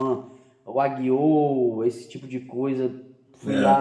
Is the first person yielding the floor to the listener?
No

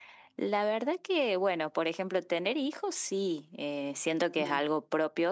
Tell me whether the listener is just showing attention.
Yes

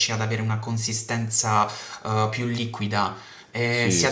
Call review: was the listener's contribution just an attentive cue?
No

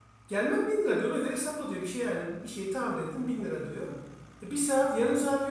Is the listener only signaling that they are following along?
Yes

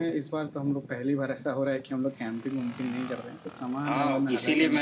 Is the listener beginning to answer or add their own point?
Yes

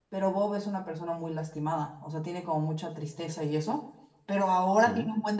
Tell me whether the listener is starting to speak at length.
No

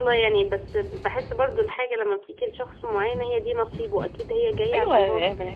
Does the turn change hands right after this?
Yes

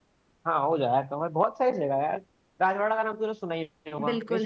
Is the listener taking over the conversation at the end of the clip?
Yes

